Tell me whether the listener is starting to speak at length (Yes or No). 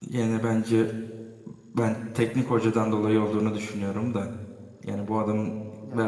Yes